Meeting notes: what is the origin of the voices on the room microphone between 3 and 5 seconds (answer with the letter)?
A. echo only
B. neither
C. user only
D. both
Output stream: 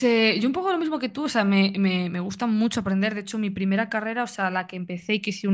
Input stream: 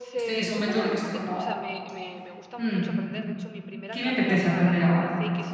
D